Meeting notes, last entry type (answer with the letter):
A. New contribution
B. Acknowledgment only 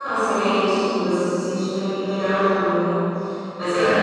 A